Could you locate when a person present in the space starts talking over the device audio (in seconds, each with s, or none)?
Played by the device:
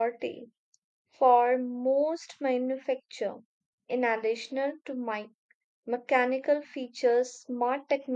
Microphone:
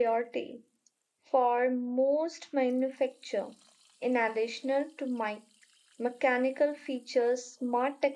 none